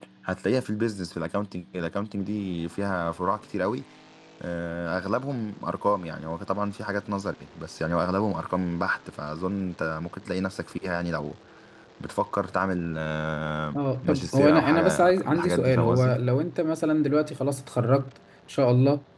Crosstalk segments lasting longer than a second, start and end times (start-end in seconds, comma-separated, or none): 13.8-16.2